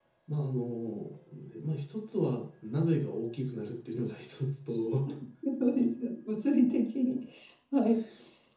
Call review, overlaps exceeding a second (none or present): none